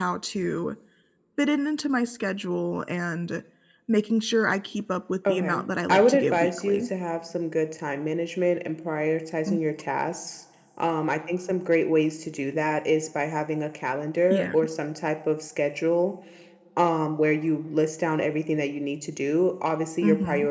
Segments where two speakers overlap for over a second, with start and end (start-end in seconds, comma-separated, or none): 5.3-6.9